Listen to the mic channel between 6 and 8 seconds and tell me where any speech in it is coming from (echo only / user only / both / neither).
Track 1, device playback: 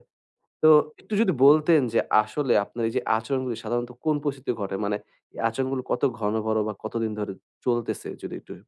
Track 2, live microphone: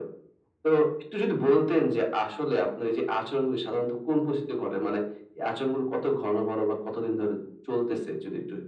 echo only